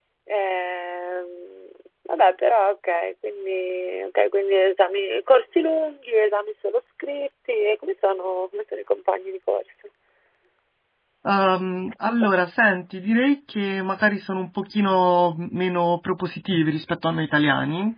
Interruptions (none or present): none